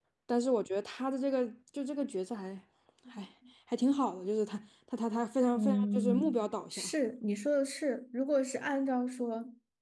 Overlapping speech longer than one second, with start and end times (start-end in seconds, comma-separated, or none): 5.5-6.8